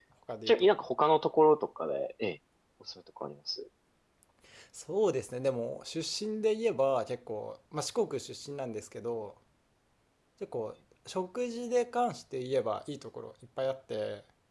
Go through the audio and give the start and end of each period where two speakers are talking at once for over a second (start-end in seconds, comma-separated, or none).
none